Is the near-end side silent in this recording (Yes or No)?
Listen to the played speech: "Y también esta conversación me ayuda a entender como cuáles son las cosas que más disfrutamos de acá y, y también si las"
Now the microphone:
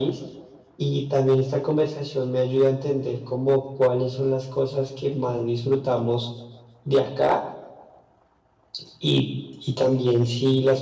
Yes